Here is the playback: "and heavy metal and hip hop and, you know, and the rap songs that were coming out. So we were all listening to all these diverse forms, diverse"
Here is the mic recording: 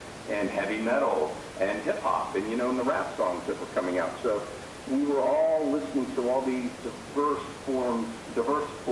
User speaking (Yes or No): No